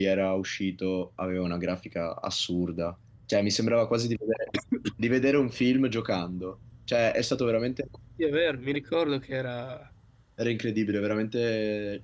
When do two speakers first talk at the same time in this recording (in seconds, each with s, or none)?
none